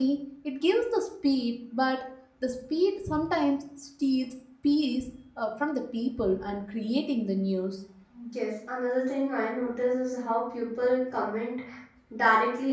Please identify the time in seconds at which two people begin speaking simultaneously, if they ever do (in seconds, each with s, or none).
none